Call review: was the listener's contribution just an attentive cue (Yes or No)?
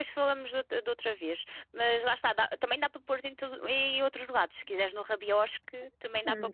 No